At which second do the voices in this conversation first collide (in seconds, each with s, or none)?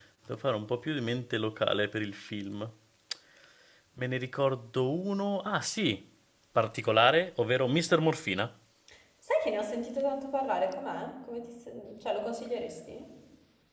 none